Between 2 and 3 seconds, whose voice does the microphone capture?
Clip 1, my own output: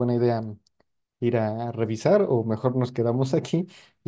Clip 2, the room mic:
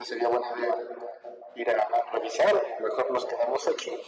echo only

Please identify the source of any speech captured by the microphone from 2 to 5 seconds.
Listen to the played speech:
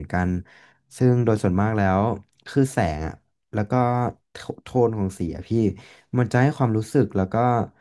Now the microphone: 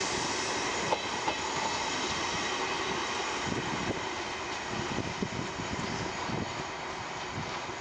neither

